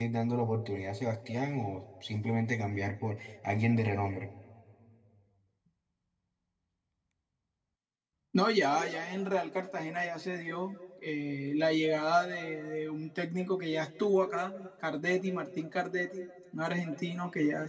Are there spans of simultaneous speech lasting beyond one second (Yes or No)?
No